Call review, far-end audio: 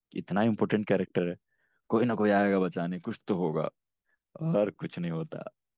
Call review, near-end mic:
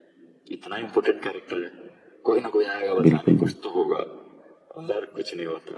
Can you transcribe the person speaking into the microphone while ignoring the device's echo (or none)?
बिल्कुल बिल्कुल।